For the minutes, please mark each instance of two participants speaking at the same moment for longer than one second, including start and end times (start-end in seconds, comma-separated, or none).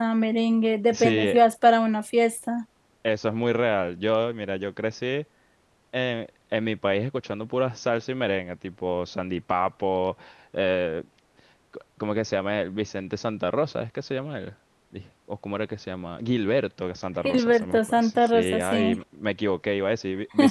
17.2-19.0